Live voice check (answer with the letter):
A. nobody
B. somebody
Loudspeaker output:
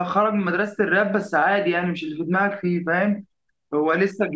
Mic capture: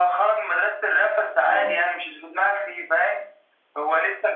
B